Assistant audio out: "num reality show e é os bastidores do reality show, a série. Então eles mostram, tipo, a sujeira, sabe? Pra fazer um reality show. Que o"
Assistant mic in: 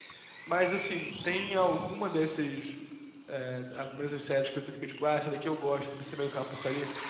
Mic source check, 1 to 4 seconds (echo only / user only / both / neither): user only